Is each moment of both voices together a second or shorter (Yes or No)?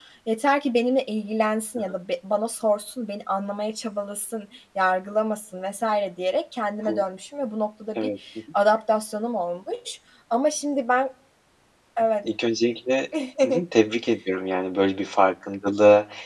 Yes